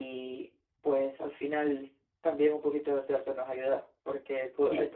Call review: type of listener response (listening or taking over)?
listening